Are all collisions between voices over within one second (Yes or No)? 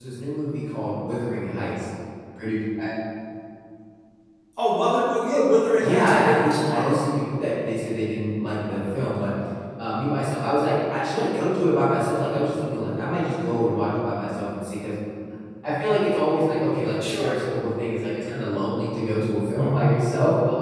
No